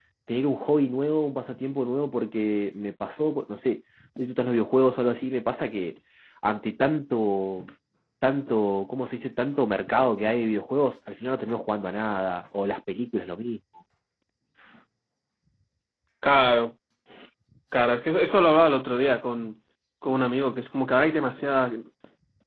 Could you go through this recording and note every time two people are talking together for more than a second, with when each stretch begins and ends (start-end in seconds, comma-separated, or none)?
none